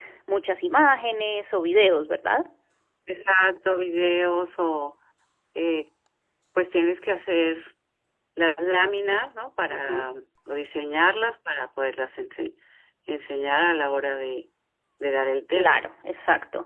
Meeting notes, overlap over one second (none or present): none